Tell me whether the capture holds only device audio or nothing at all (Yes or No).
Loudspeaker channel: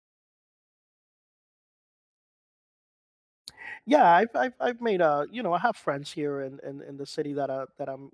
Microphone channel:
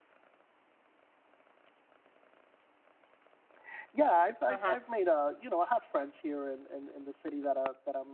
No